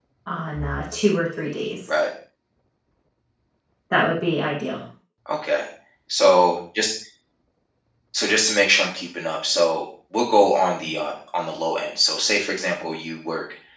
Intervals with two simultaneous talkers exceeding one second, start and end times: none

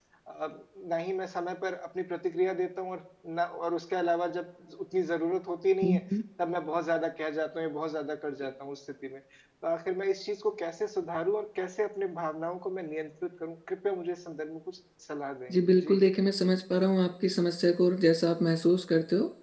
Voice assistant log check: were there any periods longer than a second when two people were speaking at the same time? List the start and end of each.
none

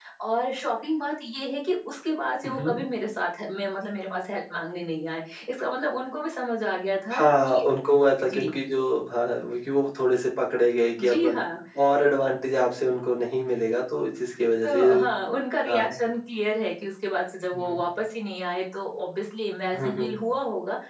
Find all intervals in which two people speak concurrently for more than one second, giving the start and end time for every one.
none

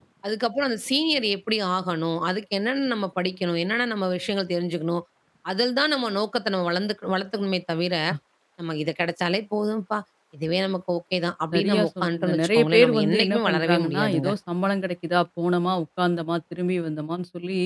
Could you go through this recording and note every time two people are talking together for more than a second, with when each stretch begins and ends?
11.5-14.3

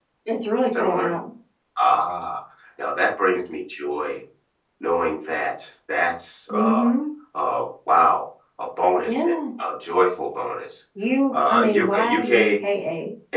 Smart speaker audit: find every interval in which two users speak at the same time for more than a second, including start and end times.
11.3-12.6

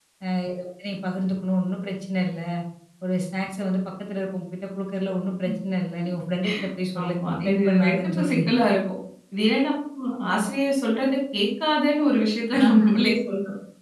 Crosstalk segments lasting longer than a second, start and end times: 7.0-8.4

